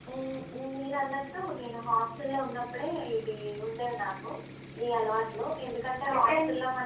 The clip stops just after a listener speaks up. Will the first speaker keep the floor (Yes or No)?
Yes